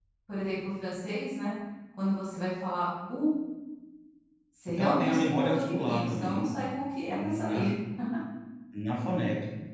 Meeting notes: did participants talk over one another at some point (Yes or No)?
Yes